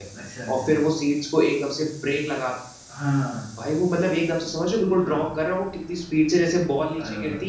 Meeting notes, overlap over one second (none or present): none